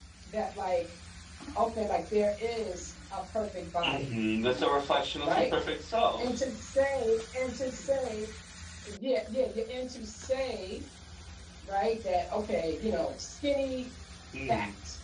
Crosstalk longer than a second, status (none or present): none